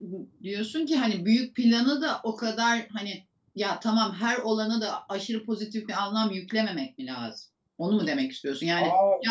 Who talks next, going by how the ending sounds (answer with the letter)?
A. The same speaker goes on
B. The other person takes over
A